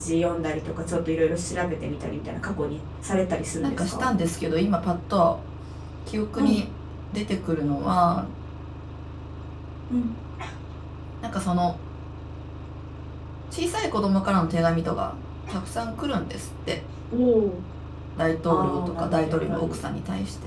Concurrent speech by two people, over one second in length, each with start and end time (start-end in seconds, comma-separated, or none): 18.5-19.8